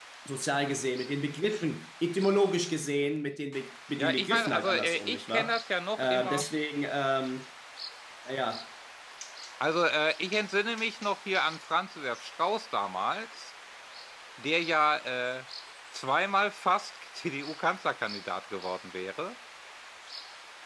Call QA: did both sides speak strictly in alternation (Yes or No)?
No